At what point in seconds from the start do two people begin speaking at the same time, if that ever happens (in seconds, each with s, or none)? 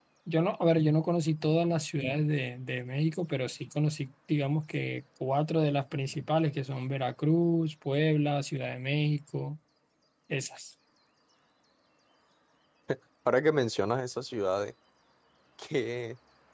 none